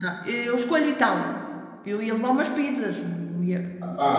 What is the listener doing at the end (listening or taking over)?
taking over